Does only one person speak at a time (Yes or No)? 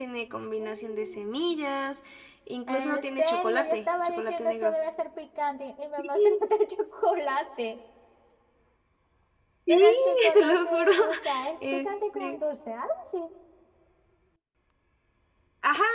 No